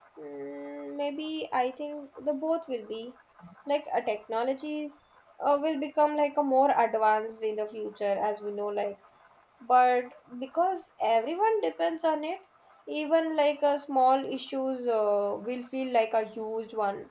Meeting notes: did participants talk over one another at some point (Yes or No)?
No